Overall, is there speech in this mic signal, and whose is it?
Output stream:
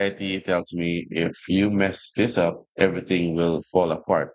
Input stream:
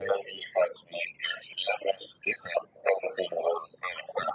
echo only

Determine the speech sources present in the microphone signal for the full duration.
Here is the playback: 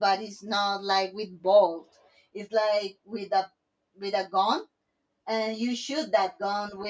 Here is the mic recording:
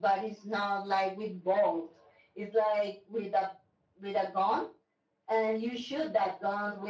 echo only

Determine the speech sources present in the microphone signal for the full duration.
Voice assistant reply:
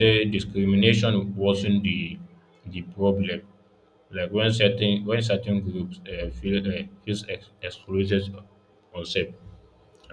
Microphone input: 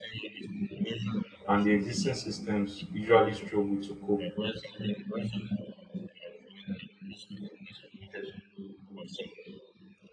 both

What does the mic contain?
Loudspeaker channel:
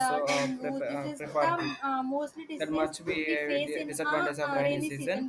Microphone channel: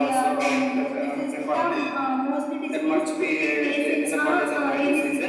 echo only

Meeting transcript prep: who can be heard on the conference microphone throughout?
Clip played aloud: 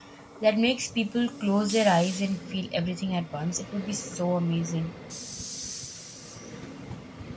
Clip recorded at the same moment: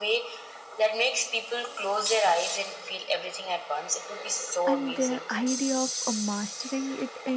both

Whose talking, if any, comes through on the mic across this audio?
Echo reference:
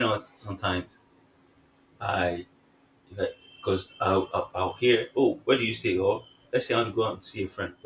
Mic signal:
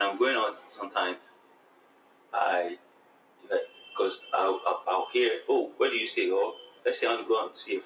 echo only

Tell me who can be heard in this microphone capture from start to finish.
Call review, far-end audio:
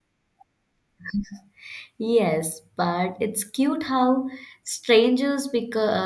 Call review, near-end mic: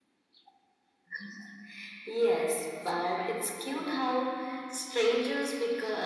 both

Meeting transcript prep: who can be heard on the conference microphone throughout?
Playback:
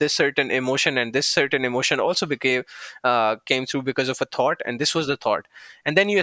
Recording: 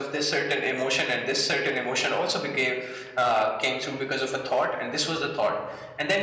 echo only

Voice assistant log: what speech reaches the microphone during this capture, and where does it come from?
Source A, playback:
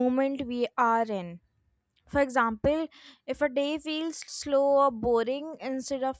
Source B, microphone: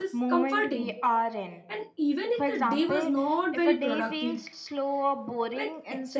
both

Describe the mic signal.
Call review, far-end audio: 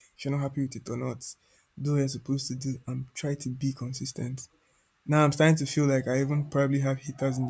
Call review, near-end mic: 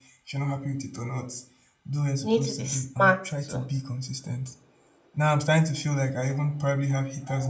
both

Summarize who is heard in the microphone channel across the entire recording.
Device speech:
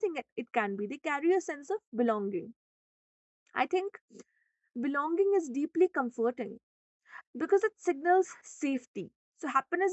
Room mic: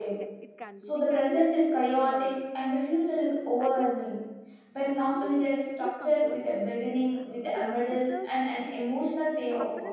both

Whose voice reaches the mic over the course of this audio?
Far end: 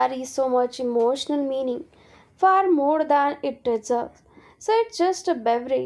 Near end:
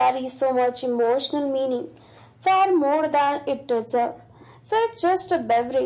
echo only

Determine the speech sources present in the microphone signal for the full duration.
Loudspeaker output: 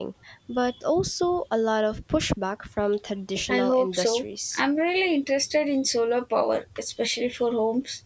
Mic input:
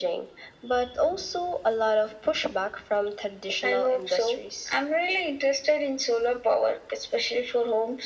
echo only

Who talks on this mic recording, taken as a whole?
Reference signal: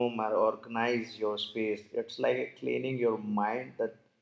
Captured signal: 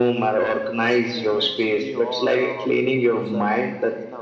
both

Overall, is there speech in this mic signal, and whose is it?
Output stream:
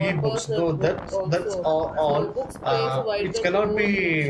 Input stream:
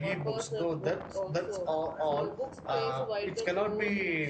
echo only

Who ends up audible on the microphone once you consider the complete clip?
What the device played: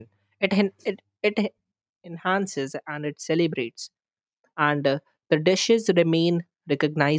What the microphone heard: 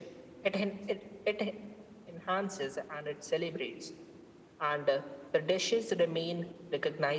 echo only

